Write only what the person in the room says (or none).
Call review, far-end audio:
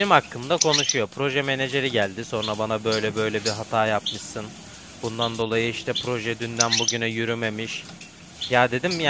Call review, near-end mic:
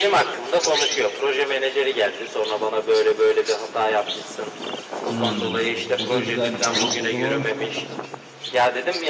Hmm, o da güzel bir şey. O zaman